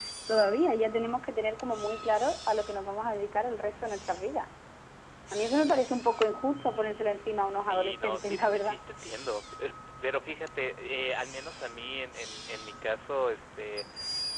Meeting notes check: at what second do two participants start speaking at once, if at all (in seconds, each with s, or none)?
7.5 s